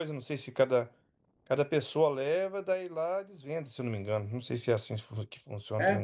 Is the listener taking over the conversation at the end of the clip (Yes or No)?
Yes